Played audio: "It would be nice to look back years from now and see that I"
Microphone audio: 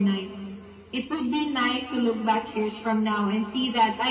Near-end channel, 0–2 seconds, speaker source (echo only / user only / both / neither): echo only